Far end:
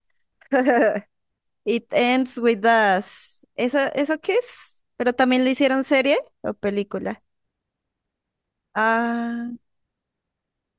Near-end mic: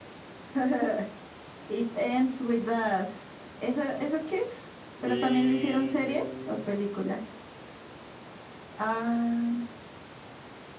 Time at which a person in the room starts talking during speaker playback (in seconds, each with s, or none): 5.0 s